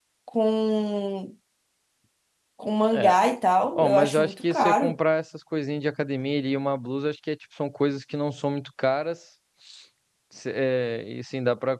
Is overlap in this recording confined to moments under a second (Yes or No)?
No